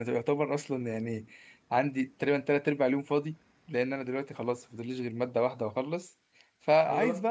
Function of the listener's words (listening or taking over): listening